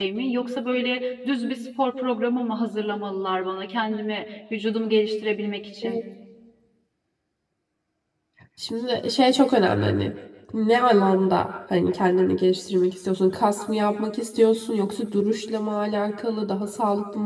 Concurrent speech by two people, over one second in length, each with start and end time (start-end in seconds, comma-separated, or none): none